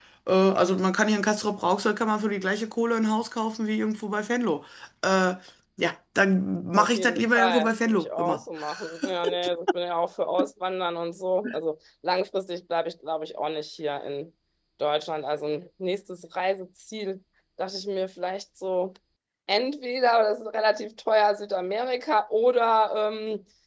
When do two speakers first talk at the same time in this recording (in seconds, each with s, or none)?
6.8 s